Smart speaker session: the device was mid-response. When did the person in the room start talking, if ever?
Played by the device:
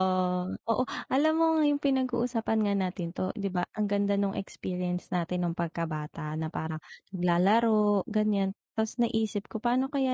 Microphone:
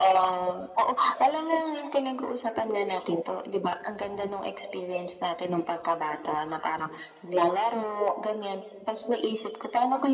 none

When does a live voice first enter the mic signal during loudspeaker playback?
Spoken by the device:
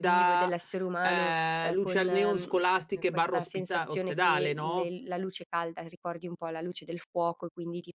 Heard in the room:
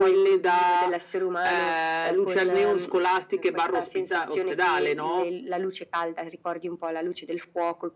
none

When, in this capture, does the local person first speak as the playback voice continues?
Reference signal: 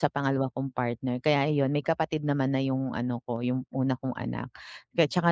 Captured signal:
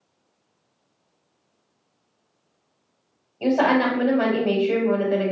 3.4 s

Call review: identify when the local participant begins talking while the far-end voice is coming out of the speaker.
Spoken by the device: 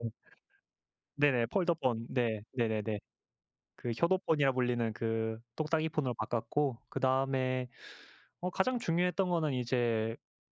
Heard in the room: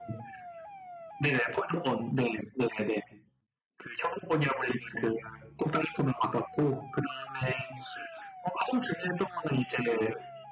none

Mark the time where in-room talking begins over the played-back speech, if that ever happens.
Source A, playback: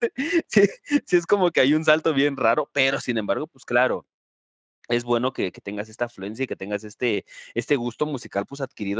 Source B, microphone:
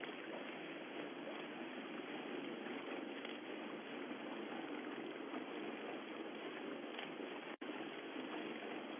none

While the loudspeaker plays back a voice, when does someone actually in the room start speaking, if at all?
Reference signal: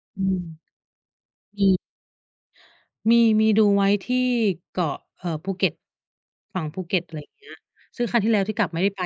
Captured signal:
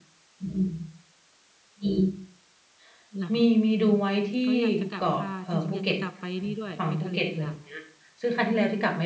3.2 s

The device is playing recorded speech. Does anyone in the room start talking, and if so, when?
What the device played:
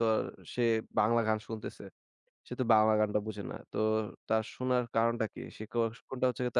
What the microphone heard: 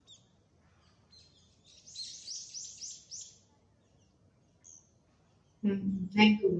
5.6 s

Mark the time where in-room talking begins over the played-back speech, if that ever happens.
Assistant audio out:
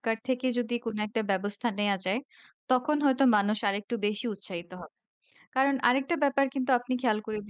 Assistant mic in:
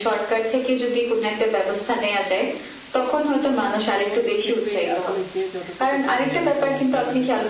3.9 s

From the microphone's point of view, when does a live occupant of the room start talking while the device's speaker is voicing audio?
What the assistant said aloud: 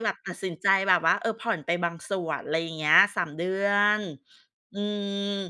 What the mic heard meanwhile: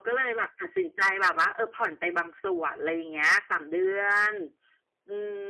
none

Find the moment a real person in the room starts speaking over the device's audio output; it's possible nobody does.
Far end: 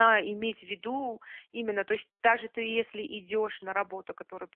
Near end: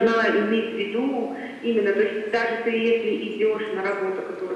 none

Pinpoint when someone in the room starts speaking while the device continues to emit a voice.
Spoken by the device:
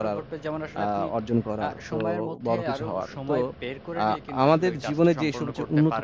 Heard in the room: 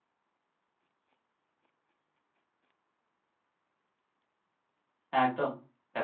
5.1 s

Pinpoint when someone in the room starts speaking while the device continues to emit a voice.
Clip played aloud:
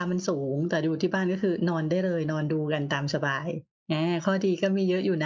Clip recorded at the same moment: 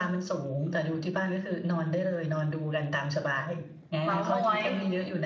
4.0 s

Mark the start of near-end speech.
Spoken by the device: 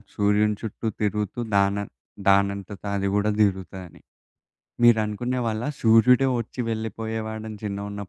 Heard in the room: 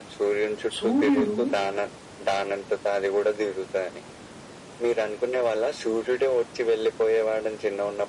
0.8 s

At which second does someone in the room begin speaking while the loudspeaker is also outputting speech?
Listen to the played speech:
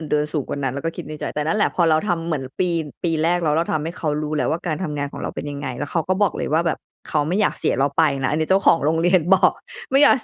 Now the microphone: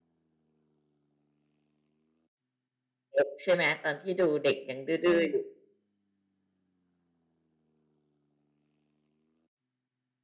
3.2 s

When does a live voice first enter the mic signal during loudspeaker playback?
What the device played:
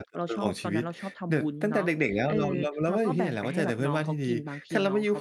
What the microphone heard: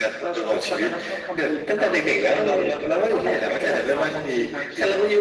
none

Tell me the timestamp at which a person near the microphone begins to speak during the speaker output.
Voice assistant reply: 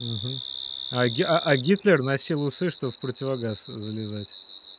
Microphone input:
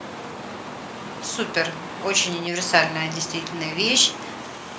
1.2 s

